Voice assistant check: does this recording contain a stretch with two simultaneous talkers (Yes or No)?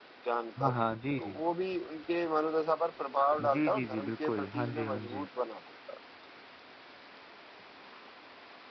Yes